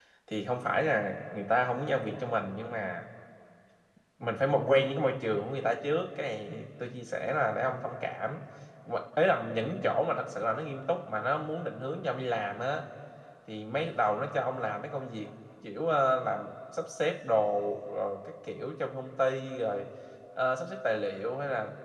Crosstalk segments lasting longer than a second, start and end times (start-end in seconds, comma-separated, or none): none